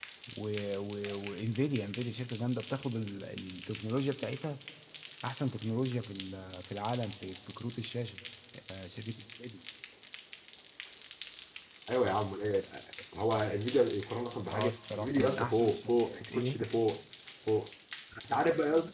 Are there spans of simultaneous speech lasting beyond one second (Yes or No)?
Yes